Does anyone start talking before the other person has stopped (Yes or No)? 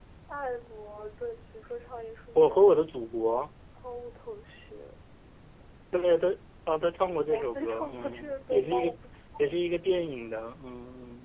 Yes